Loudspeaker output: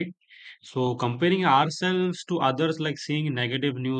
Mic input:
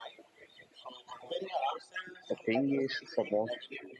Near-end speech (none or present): present